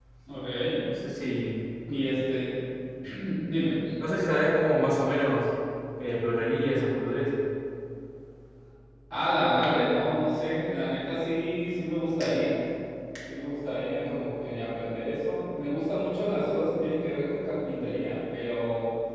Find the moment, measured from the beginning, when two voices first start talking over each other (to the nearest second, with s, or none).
none